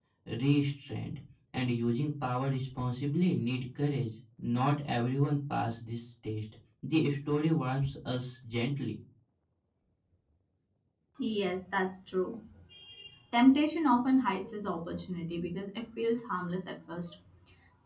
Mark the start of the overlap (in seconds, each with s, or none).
none